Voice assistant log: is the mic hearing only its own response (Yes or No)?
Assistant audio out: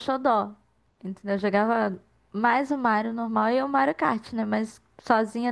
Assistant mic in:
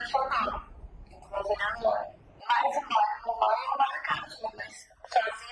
Yes